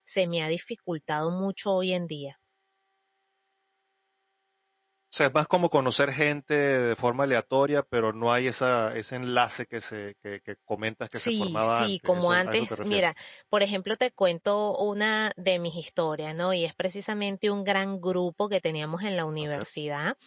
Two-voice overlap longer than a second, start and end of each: 11.1-13.0

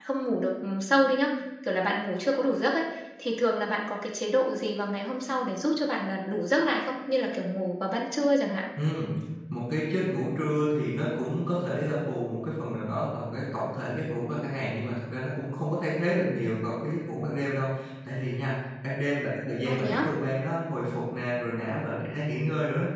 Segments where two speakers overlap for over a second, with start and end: none

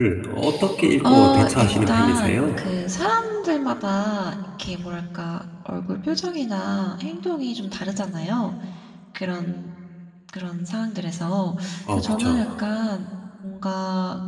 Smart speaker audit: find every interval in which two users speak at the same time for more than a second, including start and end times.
1.1-2.4

